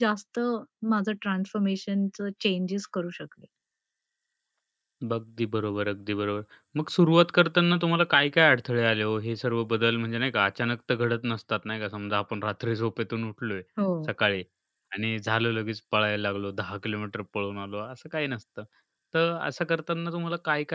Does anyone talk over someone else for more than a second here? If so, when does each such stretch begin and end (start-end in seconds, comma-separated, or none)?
none